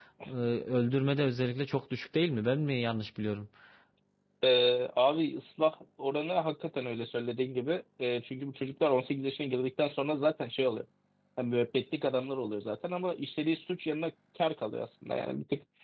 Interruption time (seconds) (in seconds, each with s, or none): none